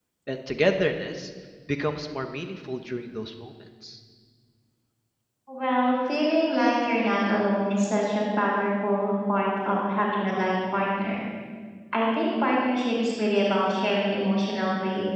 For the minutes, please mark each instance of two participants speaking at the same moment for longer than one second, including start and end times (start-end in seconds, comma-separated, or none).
none